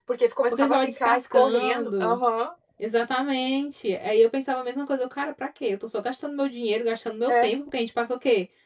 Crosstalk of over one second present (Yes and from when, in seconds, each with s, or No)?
Yes, from 0.5 s